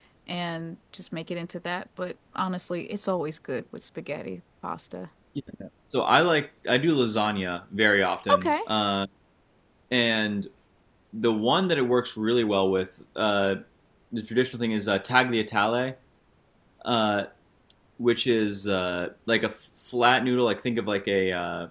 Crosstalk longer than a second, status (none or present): none